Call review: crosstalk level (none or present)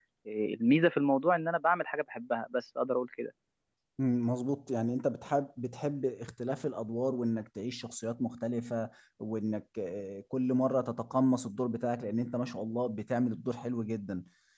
none